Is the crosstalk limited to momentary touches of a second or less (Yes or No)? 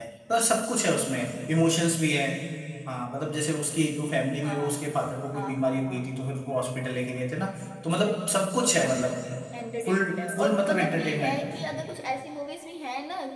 No